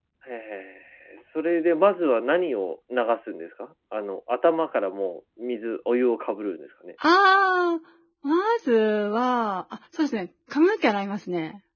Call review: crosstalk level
none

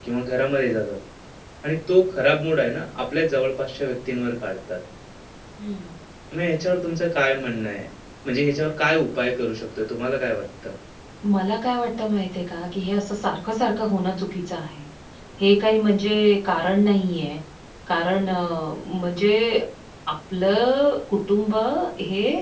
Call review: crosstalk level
none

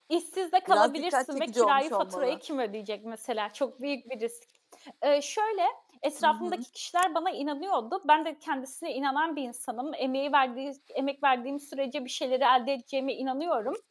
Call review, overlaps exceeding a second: present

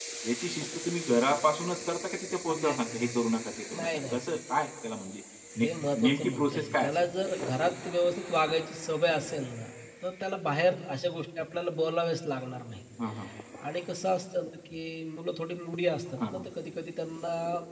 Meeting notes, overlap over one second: present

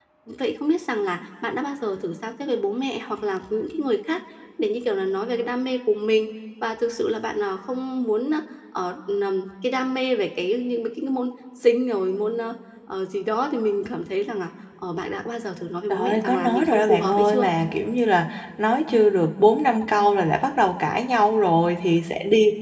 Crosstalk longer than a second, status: present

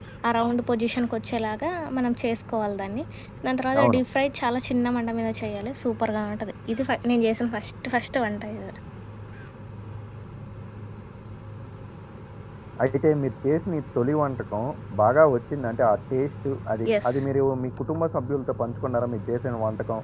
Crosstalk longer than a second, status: none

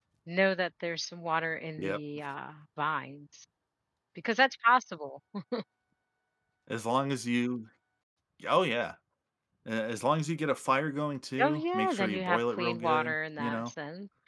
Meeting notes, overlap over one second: present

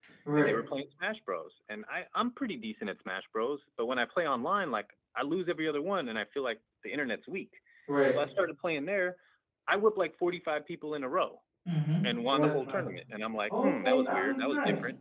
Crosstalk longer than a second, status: present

